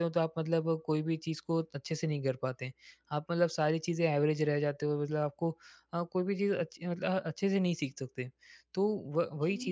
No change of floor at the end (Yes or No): Yes